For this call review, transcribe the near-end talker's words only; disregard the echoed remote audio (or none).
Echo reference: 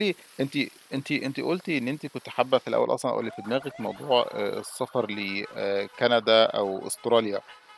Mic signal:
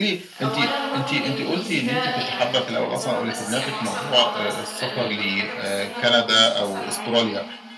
أولًا برضه الإنجليزي ده يعني كان سبب أساسي، أنا أصلًا آه درست بالألماني وكل حاجة، بس أنا ما كنتش حاسة إن عمري